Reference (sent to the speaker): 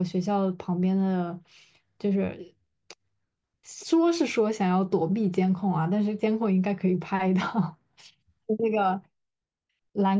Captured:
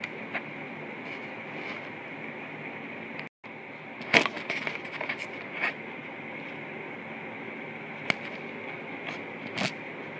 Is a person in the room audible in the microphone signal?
No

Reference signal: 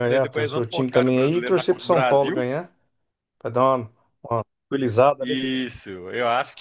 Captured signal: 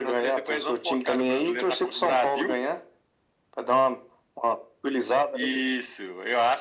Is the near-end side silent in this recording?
Yes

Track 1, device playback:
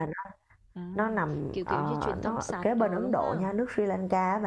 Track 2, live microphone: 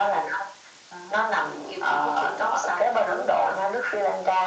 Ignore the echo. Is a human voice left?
No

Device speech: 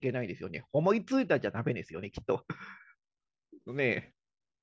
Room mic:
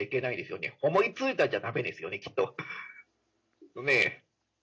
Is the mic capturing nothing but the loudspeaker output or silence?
Yes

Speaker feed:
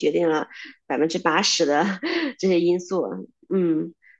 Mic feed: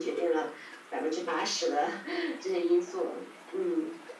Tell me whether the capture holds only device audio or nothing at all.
Yes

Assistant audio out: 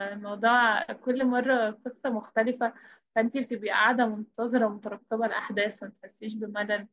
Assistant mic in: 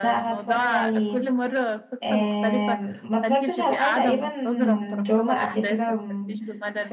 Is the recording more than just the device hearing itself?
Yes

